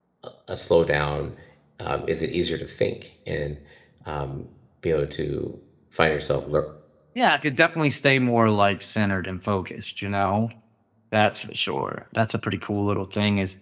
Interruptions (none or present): none